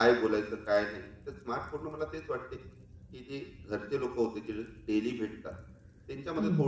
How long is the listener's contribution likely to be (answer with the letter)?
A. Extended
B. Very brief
B